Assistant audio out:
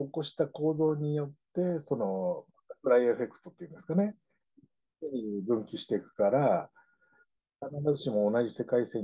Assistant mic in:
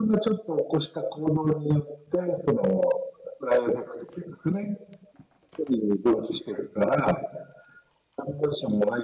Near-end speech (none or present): none